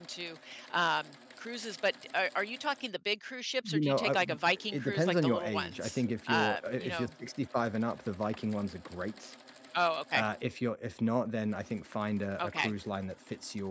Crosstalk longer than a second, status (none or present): present